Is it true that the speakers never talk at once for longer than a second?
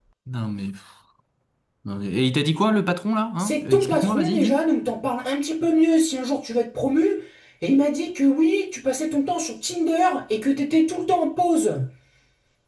No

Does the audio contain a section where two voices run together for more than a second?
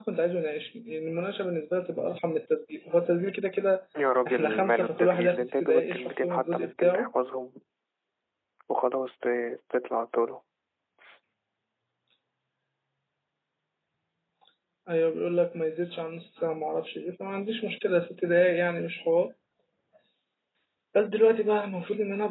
Yes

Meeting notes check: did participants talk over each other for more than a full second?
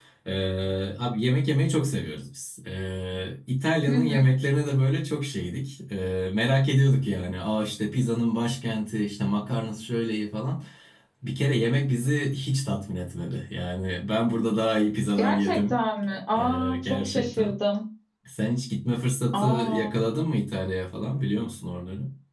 Yes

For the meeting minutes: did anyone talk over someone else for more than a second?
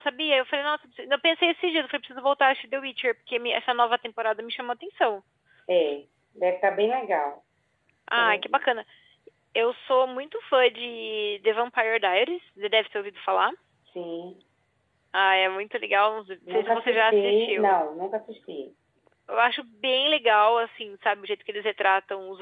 Yes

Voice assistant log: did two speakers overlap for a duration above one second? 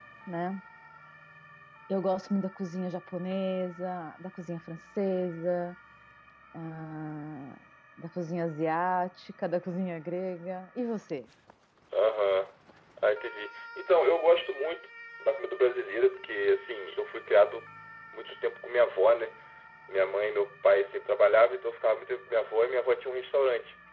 No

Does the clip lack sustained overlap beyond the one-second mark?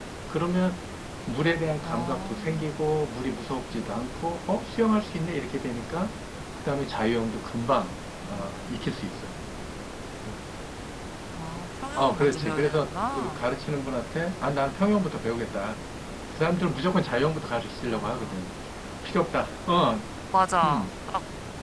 No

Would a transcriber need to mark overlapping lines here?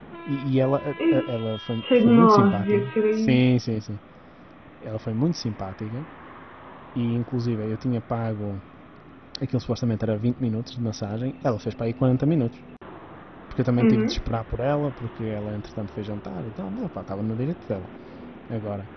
Yes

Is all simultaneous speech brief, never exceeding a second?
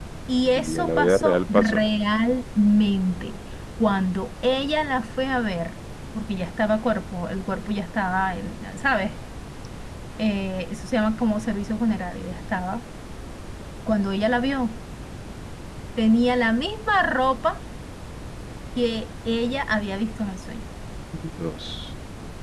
No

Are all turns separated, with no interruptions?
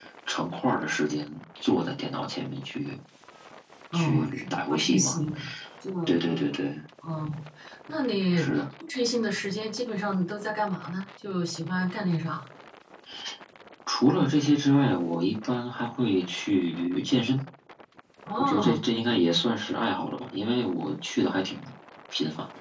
No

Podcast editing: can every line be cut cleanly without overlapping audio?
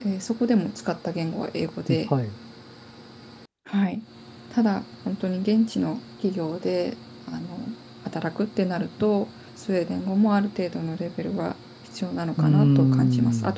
No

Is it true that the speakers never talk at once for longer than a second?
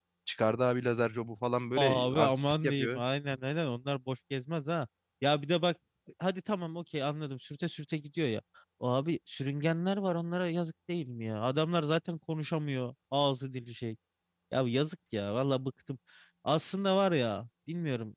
No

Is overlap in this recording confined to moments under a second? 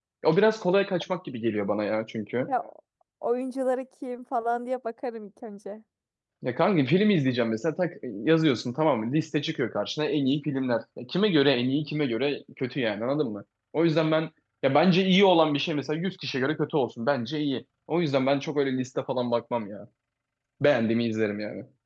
Yes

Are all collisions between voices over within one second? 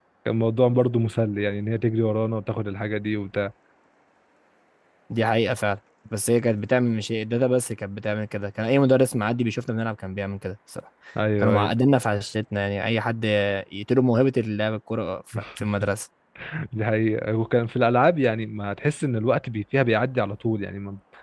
Yes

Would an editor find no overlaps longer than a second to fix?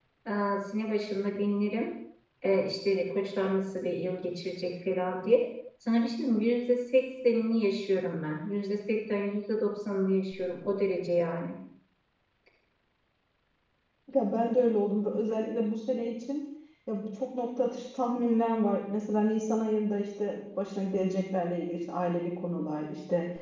Yes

